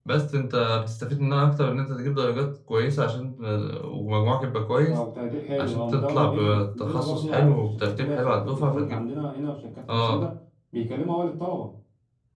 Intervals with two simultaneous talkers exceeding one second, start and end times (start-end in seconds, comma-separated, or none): 5.6-9.1